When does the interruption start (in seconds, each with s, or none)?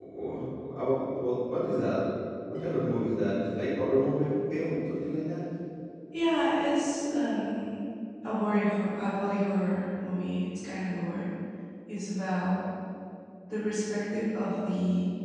none